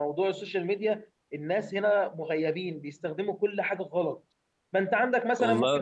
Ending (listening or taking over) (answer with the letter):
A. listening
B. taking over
A